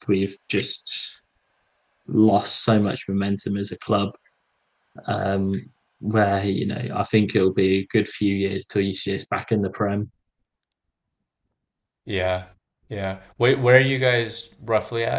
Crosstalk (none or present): none